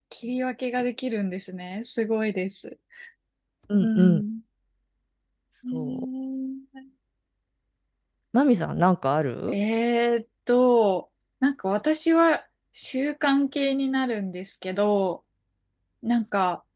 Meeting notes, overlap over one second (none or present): none